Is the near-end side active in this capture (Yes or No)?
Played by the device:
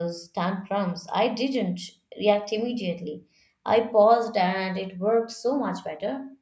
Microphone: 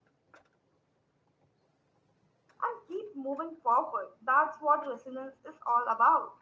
Yes